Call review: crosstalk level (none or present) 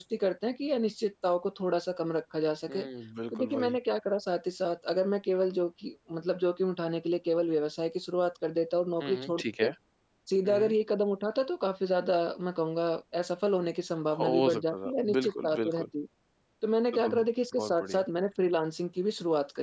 present